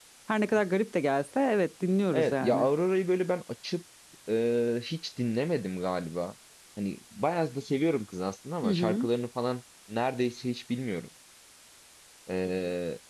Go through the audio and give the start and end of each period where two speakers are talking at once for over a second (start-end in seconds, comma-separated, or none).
none